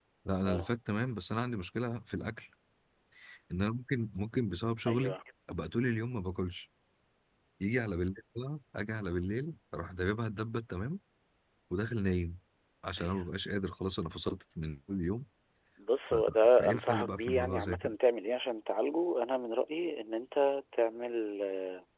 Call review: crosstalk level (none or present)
present